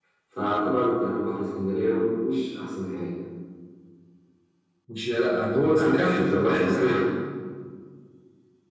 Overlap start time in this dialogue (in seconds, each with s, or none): 5.8 s